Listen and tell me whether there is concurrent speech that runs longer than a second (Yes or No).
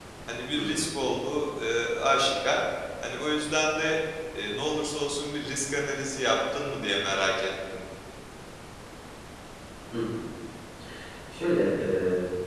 No